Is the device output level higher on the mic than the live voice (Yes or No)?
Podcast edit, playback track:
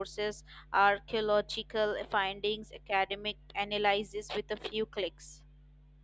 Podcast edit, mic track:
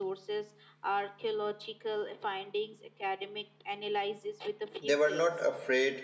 No